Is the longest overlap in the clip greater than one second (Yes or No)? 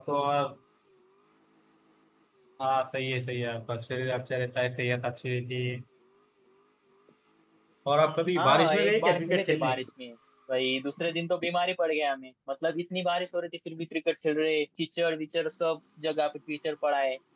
Yes